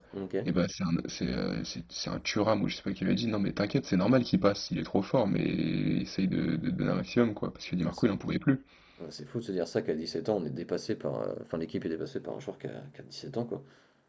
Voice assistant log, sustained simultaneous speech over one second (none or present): none